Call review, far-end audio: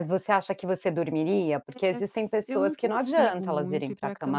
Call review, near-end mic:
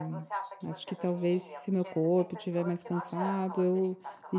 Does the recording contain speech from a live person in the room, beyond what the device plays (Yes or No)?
Yes